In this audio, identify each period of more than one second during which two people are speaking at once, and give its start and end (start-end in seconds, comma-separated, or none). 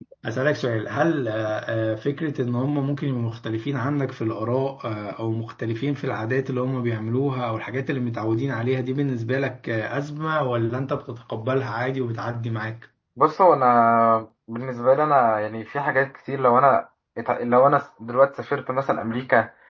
none